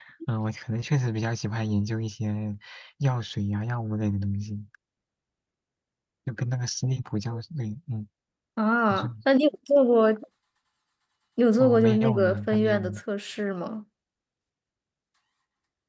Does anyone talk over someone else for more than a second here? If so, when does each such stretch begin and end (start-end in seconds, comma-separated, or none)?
11.6-13.0